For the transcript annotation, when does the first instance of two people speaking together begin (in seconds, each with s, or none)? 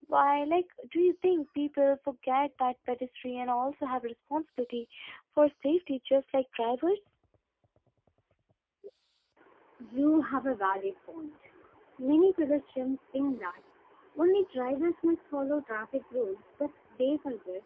none